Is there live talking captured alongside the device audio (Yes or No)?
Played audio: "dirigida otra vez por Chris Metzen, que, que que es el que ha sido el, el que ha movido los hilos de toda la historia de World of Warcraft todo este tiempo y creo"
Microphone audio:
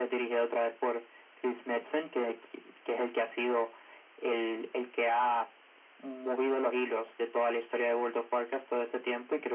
No